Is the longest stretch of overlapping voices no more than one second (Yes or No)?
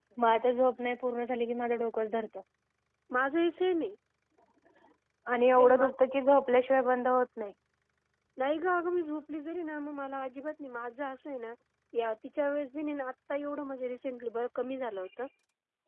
Yes